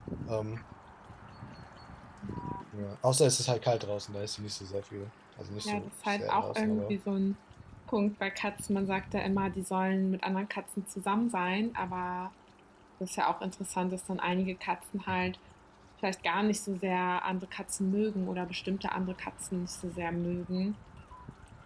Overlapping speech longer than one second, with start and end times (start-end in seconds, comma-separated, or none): 5.6-7.0